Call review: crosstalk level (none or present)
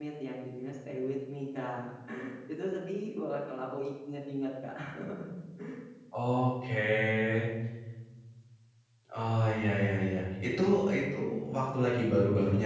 none